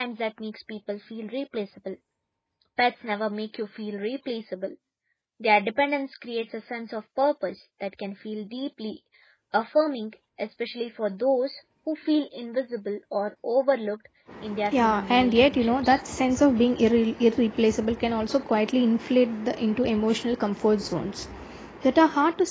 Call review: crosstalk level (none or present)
present